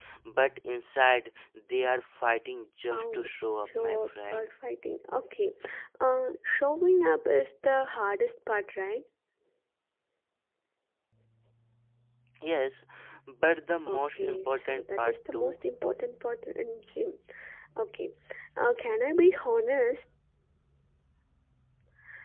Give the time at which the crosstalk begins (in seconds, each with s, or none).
2.9 s